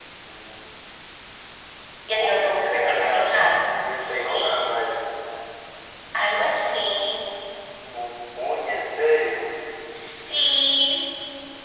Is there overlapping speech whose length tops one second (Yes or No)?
Yes